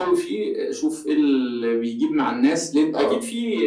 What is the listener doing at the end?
listening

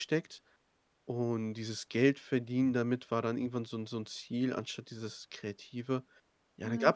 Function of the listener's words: listening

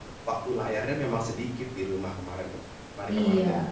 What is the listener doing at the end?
taking over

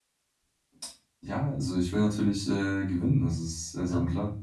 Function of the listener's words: taking over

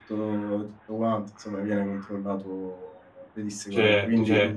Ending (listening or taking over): taking over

